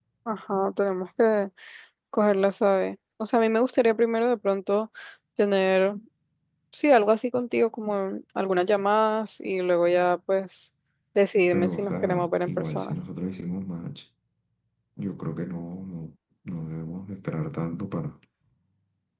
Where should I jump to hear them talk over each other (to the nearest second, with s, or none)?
12 s